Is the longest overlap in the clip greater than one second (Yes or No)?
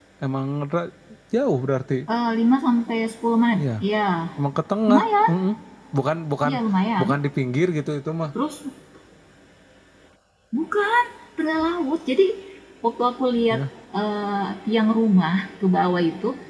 No